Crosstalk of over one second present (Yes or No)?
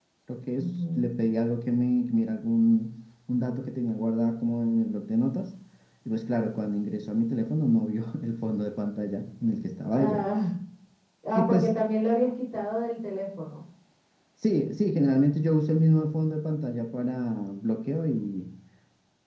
No